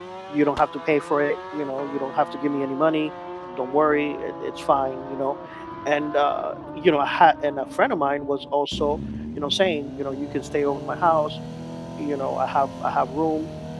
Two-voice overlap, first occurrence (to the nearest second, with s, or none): none